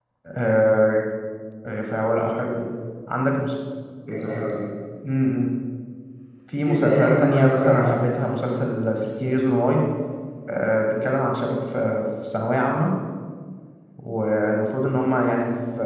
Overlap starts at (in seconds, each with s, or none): 6.7 s